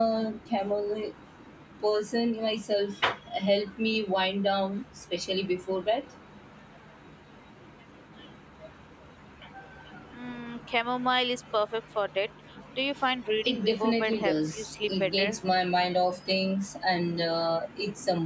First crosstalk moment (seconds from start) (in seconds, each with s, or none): 13.4 s